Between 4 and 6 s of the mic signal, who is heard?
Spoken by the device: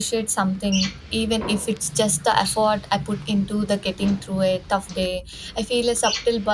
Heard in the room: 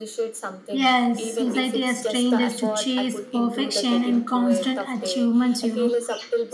both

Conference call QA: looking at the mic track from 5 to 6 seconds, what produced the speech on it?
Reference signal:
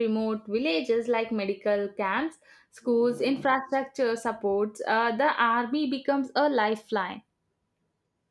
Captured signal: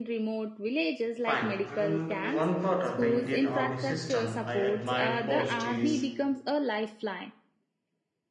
both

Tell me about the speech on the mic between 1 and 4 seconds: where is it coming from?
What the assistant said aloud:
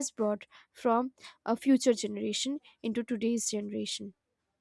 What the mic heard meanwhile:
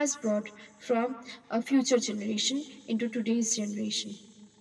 echo only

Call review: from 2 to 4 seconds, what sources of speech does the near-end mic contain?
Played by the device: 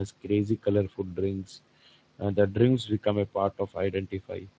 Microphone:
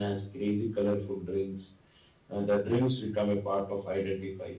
echo only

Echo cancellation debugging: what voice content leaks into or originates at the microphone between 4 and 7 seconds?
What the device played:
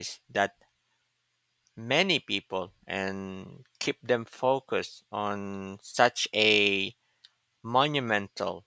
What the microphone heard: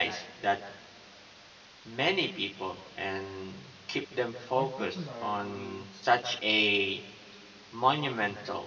both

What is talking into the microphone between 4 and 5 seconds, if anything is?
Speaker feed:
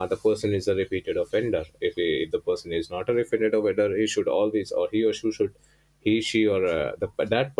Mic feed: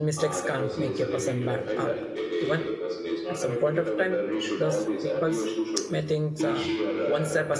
both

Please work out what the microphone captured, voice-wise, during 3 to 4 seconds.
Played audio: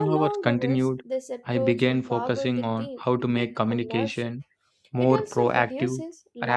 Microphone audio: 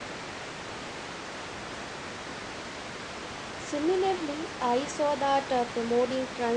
user only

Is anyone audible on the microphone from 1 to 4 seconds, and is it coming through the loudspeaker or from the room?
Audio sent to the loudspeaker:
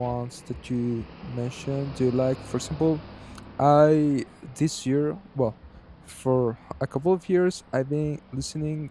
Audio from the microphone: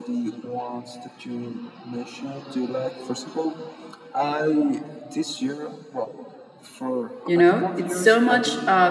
echo only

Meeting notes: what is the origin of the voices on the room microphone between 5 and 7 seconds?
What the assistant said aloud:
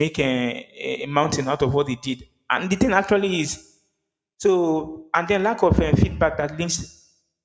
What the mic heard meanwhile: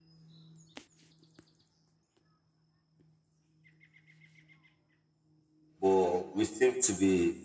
user only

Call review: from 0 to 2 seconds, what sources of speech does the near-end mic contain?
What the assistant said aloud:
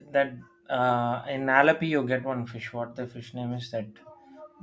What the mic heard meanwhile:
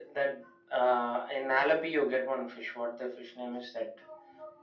echo only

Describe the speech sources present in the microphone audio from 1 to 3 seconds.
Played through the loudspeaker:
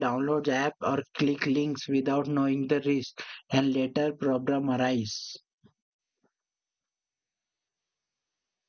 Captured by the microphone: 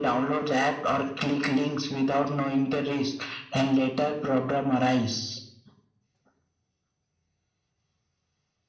echo only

